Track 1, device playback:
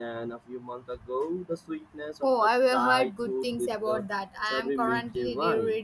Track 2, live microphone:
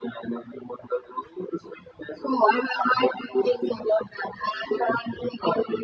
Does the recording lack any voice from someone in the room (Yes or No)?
Yes